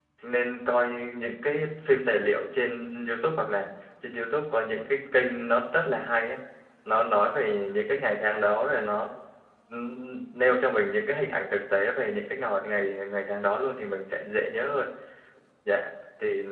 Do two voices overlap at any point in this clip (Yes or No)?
No